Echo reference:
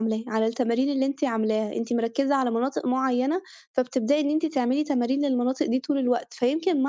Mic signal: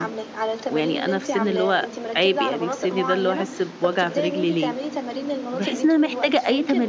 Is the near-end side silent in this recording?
No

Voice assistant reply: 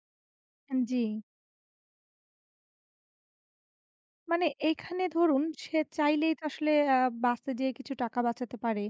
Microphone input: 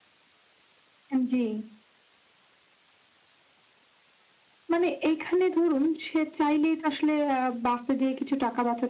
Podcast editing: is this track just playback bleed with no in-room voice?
Yes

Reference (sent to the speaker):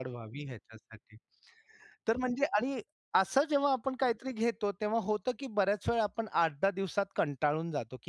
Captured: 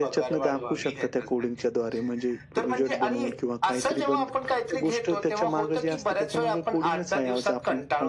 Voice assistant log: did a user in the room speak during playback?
Yes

